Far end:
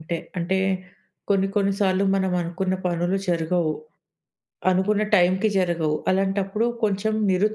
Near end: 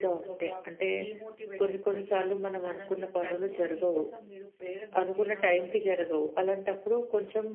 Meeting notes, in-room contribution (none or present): present